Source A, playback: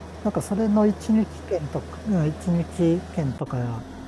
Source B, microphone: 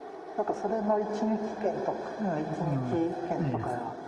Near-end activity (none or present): present